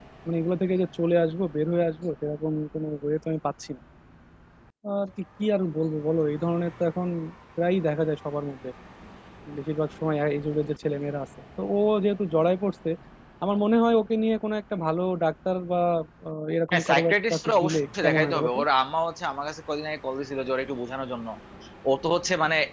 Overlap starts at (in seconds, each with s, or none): 16.7 s